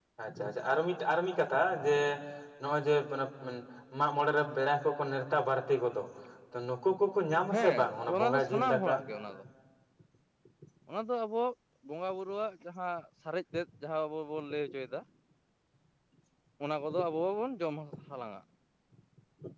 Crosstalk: present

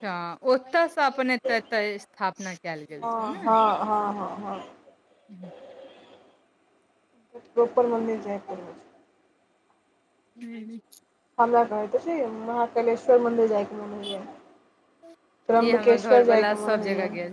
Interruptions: present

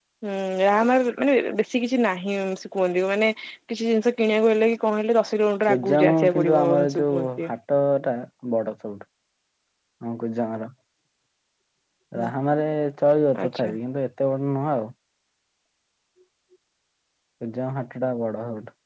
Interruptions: present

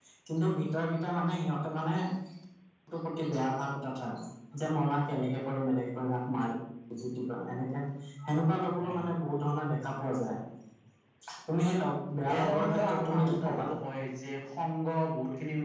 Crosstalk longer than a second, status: present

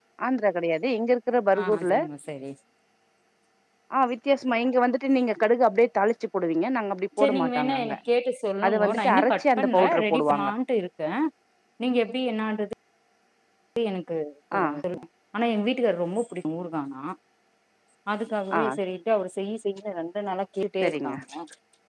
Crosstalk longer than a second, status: present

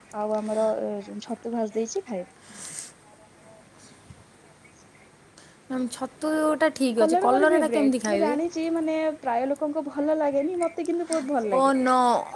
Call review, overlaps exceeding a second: present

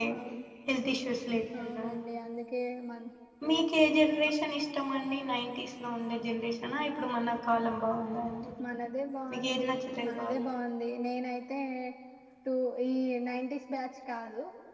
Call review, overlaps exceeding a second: none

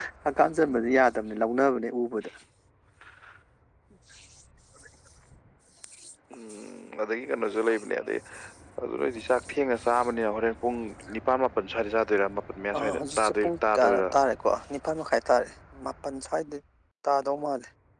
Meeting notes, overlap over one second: present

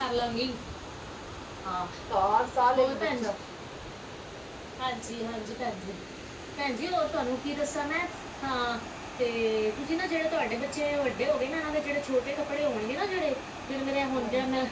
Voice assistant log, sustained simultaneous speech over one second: none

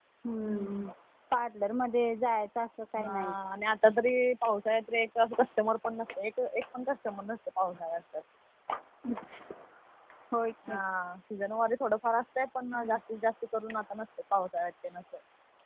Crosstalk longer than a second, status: none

